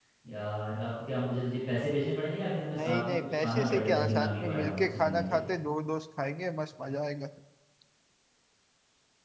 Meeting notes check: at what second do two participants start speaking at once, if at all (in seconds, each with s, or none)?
2.7 s